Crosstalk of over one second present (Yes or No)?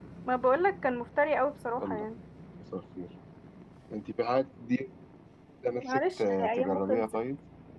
Yes